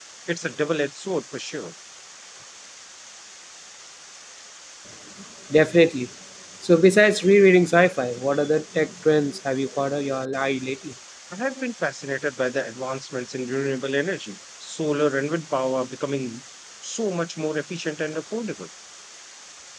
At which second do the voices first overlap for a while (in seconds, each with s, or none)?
none